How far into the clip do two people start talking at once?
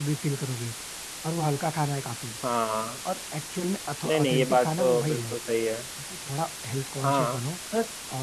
4.0 s

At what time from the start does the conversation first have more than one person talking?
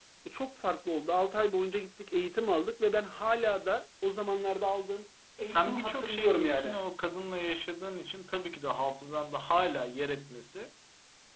5.4 s

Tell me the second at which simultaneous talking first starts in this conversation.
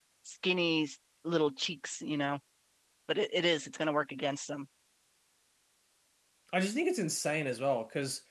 none

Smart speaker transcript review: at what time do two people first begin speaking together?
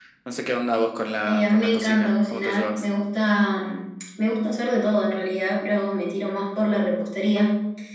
1.3 s

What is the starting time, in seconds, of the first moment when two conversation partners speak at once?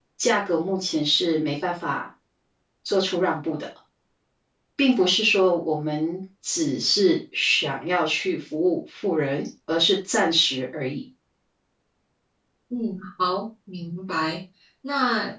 none

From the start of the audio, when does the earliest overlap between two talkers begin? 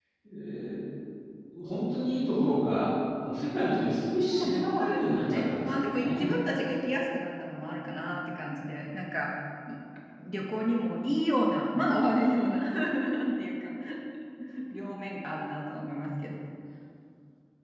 4.3 s

